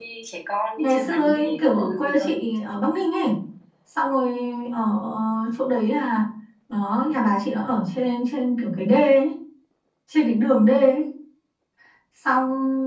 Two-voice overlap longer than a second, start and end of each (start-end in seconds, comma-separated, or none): 0.8-2.3